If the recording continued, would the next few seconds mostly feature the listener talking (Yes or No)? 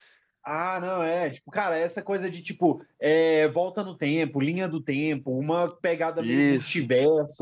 No